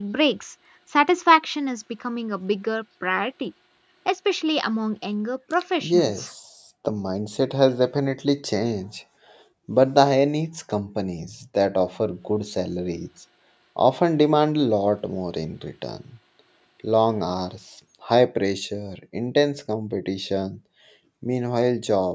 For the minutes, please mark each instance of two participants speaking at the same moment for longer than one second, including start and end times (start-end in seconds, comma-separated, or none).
none